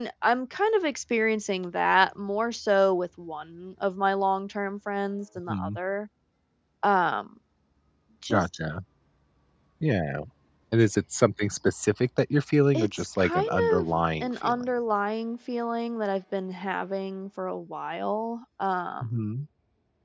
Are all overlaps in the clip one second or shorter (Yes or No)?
No